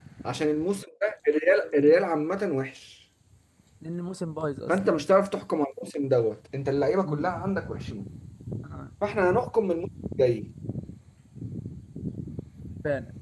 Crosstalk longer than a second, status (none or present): none